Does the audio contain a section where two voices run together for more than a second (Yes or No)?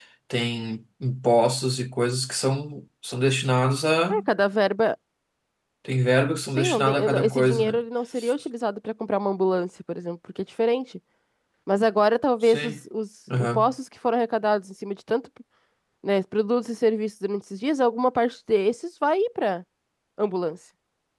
Yes